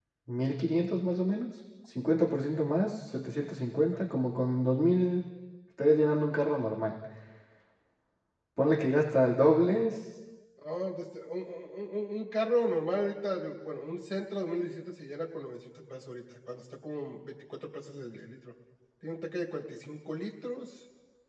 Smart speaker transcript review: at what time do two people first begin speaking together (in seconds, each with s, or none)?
none